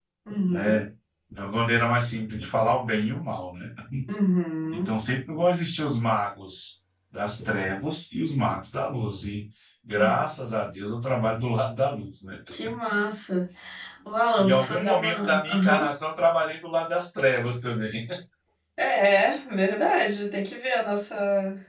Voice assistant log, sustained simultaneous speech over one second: present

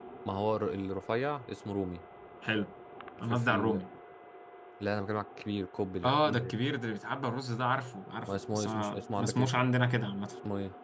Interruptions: present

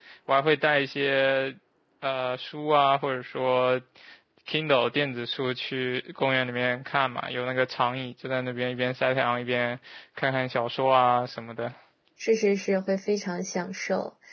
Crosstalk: none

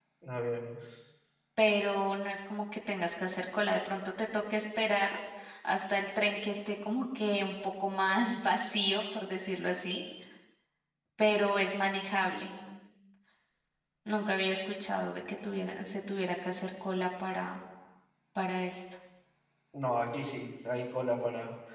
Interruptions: none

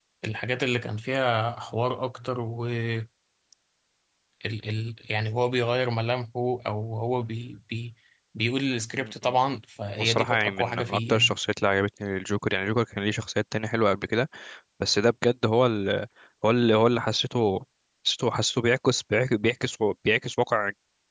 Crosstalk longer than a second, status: present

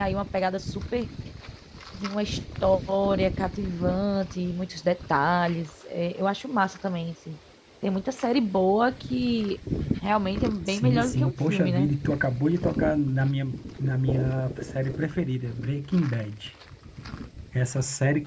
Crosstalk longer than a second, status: present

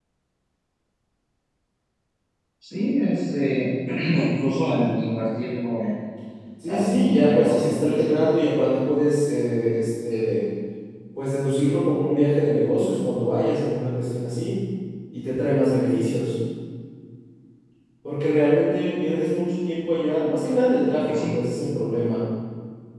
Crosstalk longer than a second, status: present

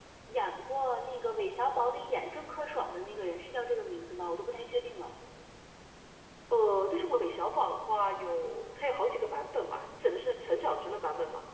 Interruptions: none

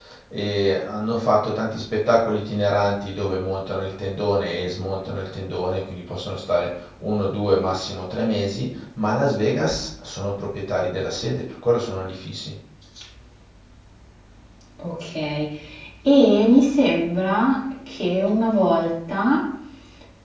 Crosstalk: none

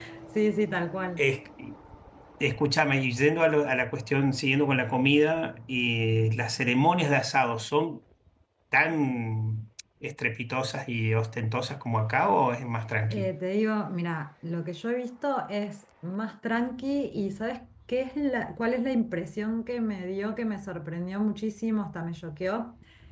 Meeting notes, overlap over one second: none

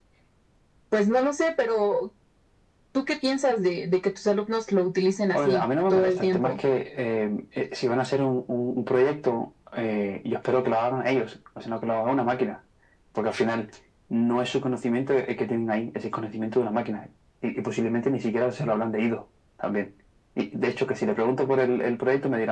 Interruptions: present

